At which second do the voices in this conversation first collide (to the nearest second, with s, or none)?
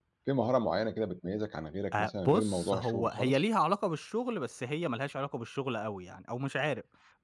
2 s